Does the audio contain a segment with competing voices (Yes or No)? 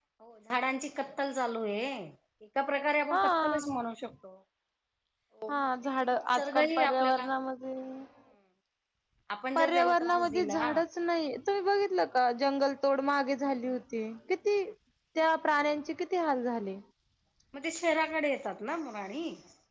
Yes